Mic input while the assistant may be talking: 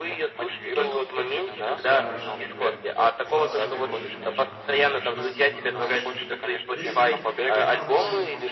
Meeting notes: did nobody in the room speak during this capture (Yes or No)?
No